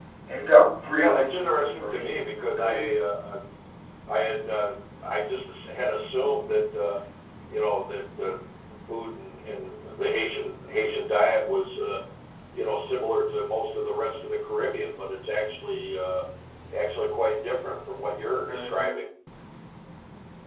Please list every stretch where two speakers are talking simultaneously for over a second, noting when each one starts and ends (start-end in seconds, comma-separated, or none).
0.9-2.2